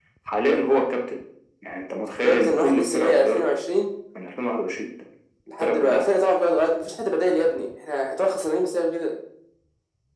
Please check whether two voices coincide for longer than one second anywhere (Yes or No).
Yes